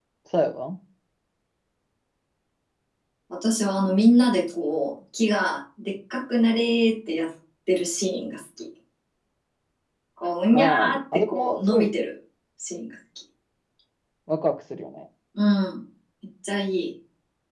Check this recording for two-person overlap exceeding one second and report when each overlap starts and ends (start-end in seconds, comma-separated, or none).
10.5-11.9